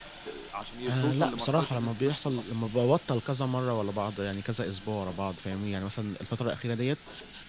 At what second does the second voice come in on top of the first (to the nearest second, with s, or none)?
1 s